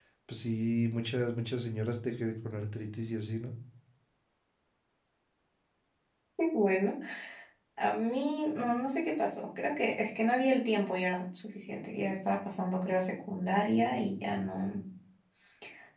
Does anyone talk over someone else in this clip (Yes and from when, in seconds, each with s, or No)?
No